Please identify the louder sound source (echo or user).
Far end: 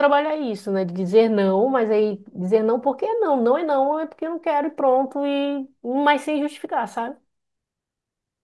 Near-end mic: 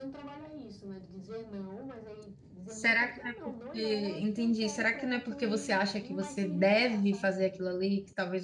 user